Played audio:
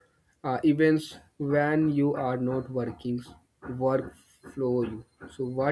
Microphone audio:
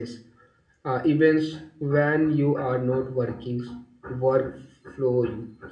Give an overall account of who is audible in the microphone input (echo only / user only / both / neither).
echo only